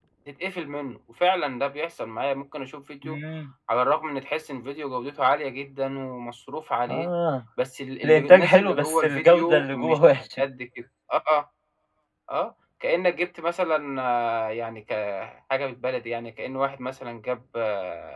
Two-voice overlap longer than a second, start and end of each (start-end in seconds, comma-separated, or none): 8.0-10.0